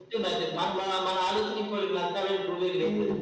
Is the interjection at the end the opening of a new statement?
Yes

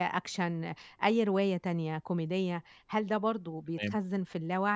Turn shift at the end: No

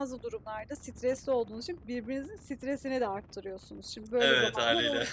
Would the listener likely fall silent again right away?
Yes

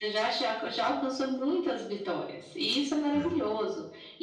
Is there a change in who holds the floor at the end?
No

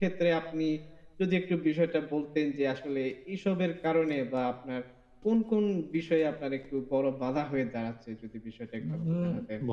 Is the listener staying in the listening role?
No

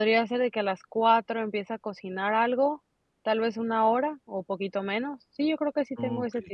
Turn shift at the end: Yes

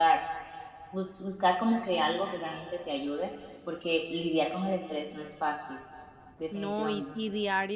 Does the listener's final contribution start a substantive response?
Yes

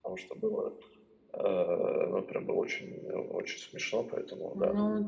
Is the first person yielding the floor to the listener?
Yes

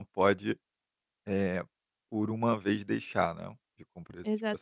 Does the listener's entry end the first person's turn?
Yes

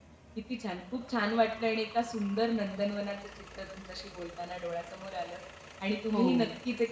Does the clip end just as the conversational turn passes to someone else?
No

